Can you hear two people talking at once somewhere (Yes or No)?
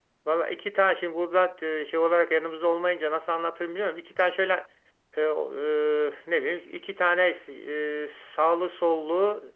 No